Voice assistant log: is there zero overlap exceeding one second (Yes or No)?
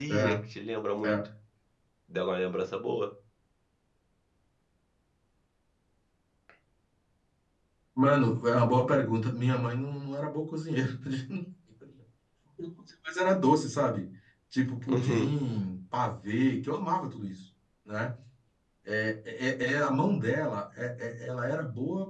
Yes